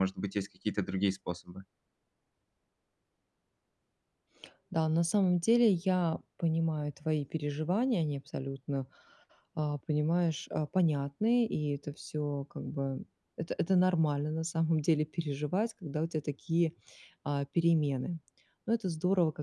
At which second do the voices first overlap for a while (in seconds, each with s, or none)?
none